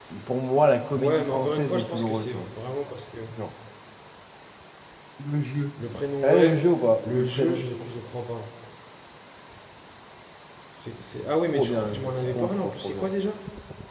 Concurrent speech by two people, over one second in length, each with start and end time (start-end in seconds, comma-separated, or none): 0.9-2.5, 11.5-13.1